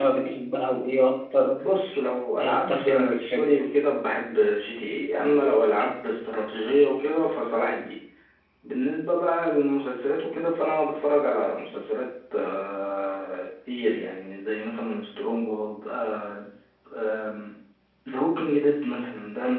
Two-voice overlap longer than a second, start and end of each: 2.4-3.6

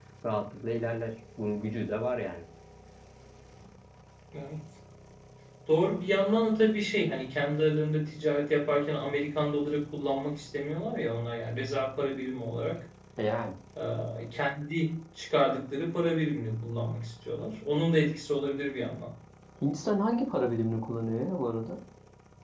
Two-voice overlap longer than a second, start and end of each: none

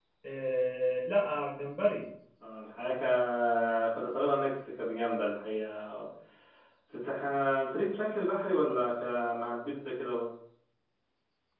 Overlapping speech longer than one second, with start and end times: none

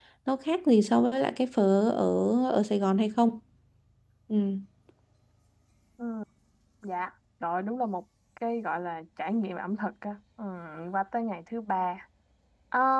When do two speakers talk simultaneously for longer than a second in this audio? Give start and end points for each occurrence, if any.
none

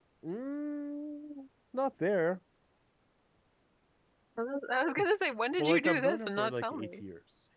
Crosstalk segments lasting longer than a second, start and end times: 5.6-7.0

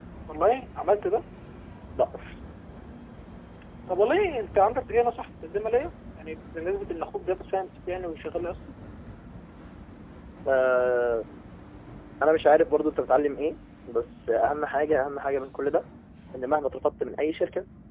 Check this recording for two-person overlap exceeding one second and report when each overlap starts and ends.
none

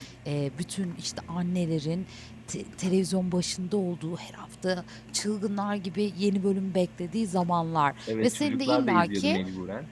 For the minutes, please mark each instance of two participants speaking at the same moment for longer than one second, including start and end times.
8.1-9.4

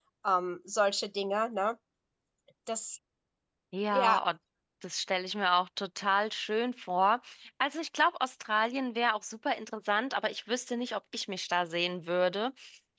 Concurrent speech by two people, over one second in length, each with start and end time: none

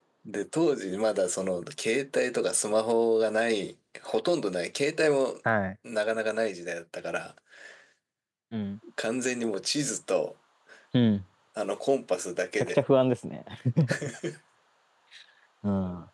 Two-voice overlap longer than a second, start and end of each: none

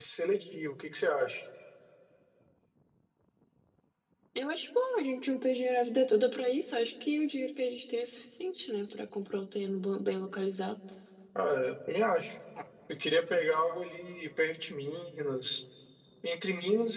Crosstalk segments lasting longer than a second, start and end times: none

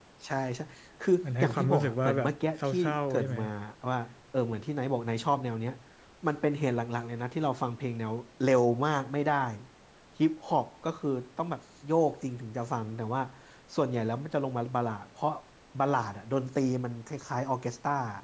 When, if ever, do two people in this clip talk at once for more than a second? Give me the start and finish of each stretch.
1.2-3.4

